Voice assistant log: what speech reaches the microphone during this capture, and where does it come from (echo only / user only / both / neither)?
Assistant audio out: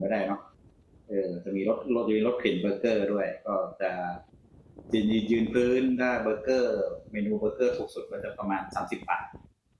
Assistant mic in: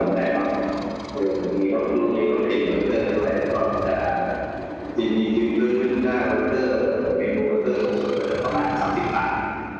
echo only